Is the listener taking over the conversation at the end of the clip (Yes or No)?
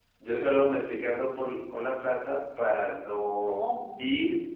No